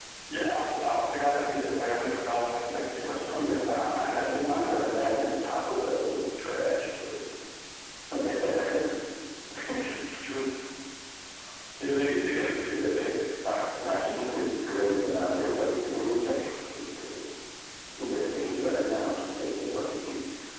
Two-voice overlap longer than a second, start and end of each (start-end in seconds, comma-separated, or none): 3.2-4.9